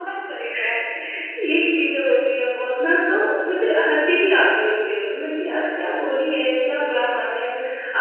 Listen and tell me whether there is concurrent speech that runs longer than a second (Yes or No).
No